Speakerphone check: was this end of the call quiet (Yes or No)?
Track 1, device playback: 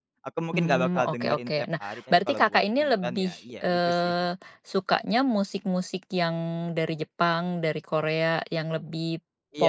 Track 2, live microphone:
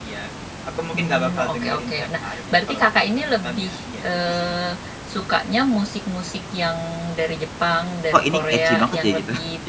No